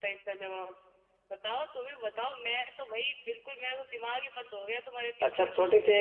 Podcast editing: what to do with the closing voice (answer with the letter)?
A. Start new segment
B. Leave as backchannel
A